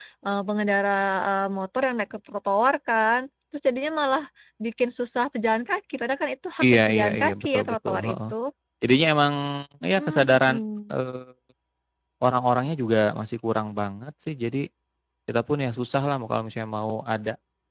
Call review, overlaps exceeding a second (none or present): present